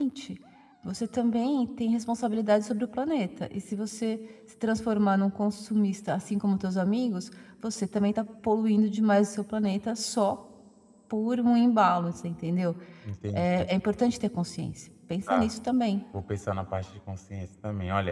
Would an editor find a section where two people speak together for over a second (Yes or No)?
No